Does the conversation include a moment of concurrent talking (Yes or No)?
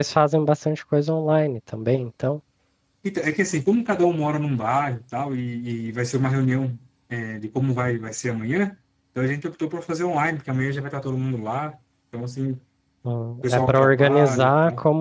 Yes